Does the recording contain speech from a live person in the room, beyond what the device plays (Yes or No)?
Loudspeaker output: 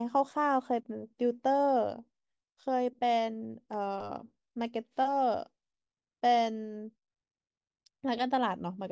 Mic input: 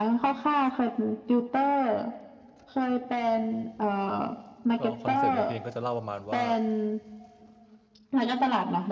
Yes